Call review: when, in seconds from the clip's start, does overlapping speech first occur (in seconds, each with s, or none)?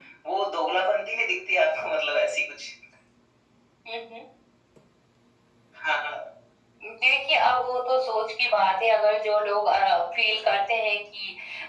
none